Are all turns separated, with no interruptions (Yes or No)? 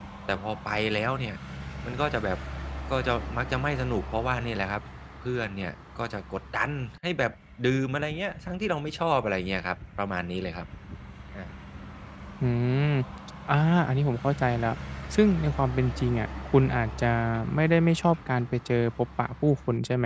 Yes